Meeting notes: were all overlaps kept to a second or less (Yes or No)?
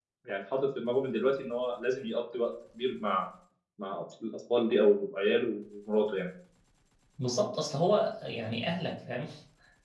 Yes